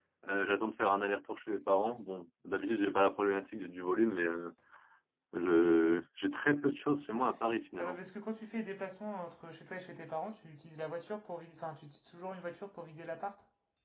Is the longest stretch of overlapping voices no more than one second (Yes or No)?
Yes